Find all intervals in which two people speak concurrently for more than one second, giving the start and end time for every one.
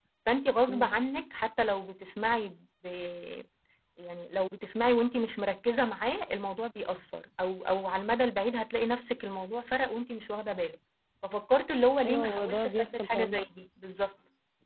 12.1-13.4

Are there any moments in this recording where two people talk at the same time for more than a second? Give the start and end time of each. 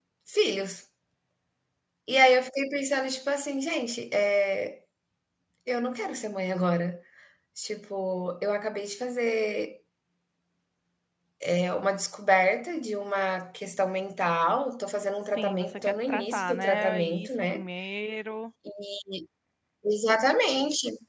15.4-17.6

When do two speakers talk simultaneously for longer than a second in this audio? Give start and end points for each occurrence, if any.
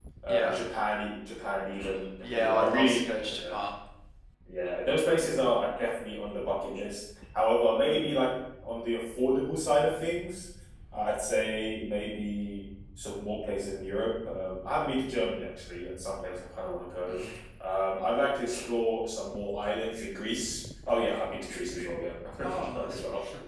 2.3-3.5

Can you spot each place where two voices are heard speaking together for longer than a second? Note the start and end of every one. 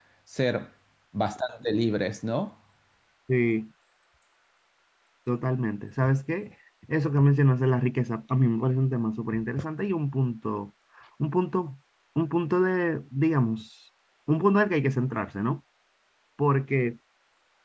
none

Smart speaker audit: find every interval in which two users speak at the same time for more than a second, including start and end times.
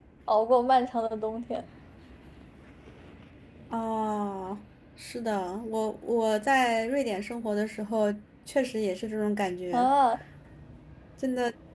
none

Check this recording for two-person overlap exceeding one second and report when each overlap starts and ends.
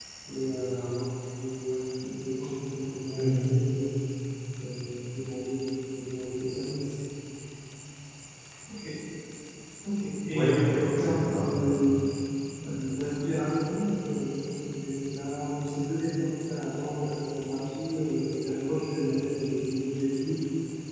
10.3-11.7

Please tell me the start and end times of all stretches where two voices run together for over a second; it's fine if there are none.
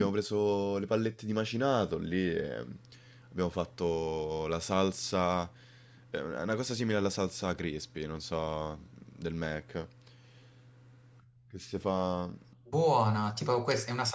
none

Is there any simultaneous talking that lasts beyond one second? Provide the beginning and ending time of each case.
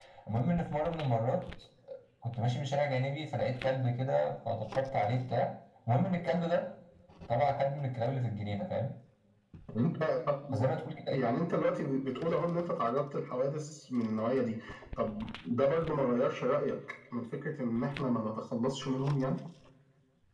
none

